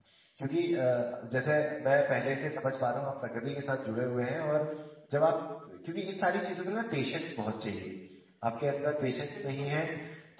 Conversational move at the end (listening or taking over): listening